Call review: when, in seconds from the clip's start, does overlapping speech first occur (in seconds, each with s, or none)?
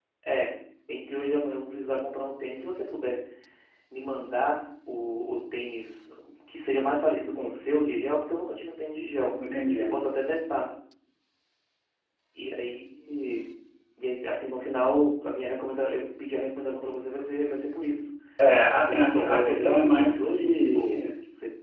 18.8 s